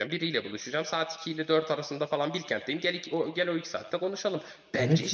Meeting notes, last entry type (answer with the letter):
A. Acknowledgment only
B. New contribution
B